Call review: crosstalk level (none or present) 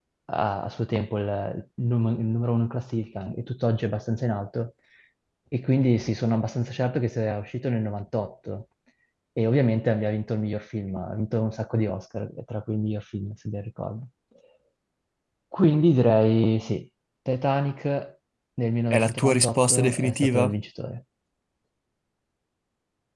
present